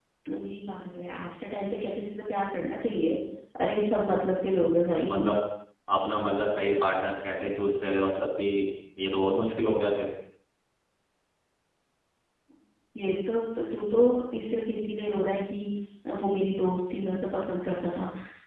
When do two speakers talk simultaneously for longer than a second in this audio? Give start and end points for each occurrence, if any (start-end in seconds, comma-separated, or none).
none